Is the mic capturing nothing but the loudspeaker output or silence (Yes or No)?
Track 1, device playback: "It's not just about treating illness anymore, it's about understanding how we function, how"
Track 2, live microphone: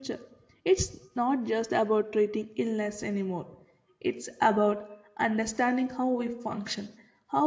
Yes